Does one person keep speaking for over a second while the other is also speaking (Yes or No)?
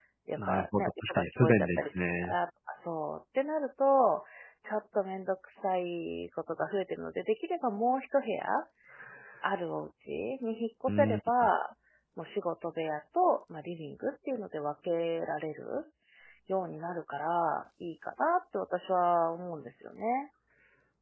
Yes